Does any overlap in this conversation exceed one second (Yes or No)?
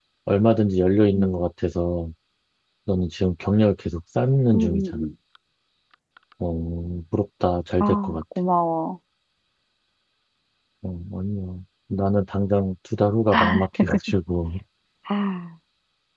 No